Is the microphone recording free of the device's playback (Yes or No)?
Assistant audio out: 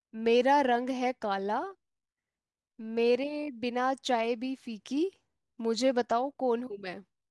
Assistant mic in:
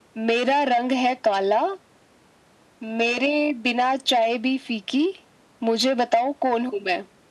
No